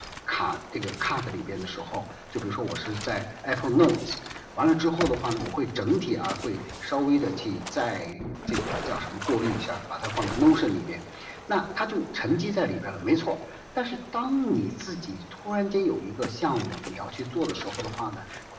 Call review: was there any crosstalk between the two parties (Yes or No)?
No